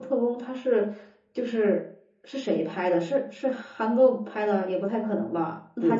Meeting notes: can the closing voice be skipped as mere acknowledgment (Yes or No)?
No